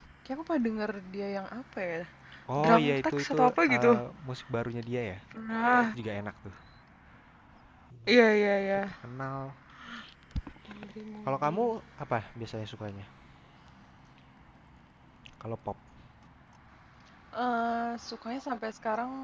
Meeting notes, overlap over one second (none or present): present